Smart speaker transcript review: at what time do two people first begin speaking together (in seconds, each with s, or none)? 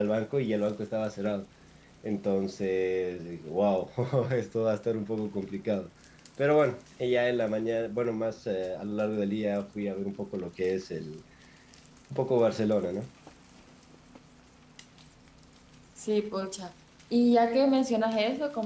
none